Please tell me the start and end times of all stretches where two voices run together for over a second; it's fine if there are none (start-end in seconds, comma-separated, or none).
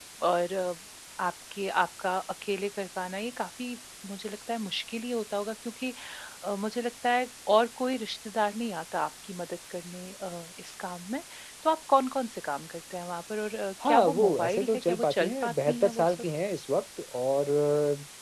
13.8-16.2